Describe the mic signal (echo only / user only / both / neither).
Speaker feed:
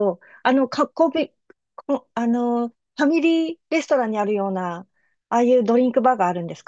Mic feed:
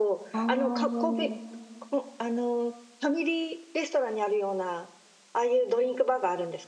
both